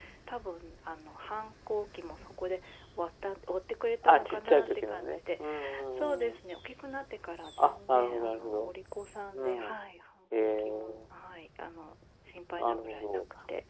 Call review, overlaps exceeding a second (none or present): present